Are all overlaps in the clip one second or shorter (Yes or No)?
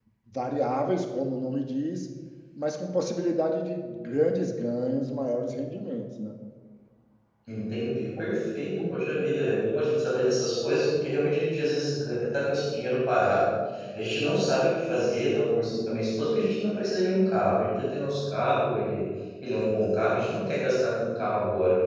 Yes